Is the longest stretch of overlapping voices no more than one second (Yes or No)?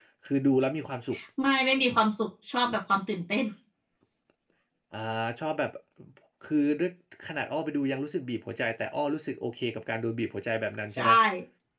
Yes